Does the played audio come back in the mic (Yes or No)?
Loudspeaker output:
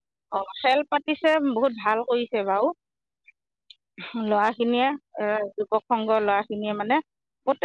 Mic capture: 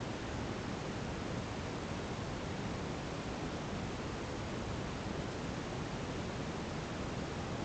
No